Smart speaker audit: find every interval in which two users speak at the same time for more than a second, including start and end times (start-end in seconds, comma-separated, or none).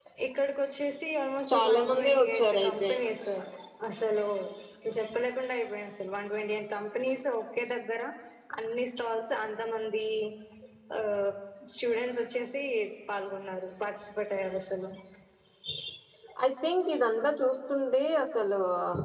1.5-2.9